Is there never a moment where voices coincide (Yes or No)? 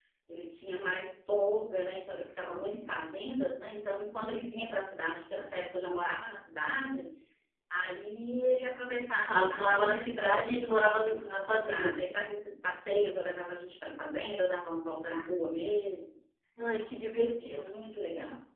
No